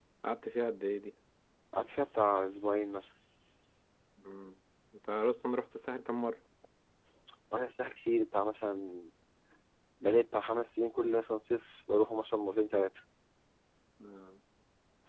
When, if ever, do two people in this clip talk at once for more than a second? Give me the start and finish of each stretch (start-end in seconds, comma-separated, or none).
none